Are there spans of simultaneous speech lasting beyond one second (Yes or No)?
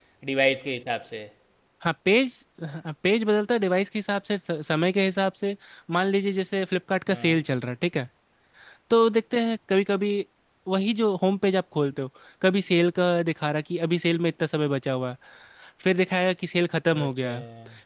No